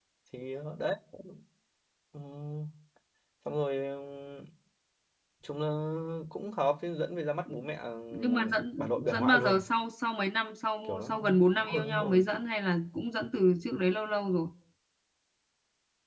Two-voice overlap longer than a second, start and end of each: 8.1-9.6, 10.8-12.2

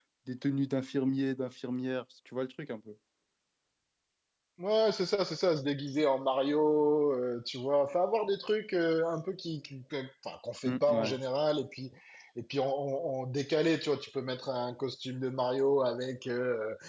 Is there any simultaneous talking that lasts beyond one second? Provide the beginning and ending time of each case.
none

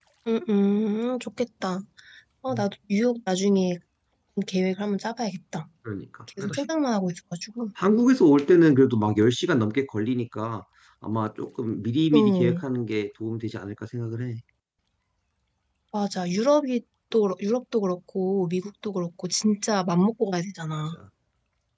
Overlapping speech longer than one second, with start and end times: none

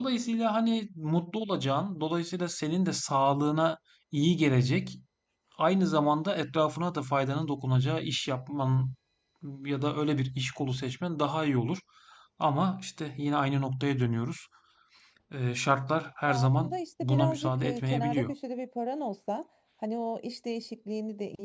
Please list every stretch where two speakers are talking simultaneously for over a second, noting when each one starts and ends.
16.2-18.3

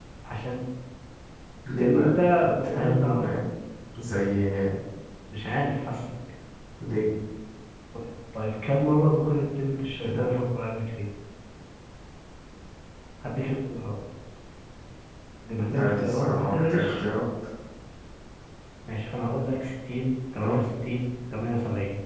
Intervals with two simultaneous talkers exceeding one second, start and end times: 1.8-3.4, 15.7-17.0

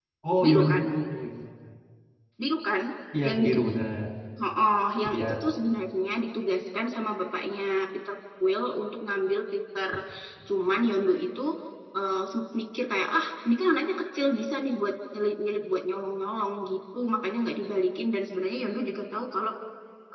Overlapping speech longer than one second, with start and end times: none

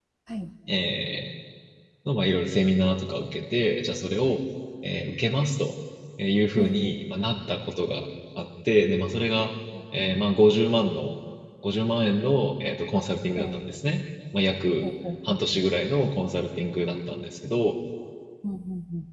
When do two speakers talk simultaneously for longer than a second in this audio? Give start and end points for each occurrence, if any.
none

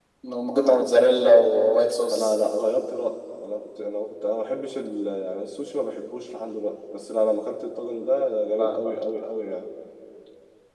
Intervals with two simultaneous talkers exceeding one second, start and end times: none

